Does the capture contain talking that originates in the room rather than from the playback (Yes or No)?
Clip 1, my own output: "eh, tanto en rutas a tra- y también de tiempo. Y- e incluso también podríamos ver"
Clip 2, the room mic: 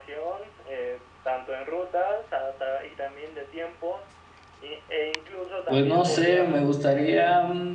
Yes